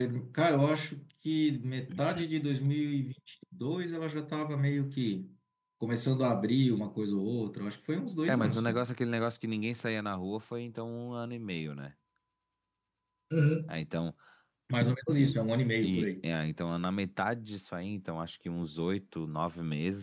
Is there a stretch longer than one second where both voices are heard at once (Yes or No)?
No